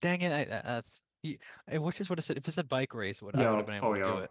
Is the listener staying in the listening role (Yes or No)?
No